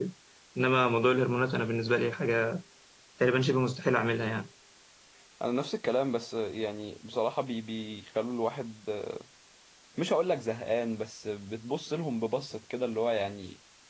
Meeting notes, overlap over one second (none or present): none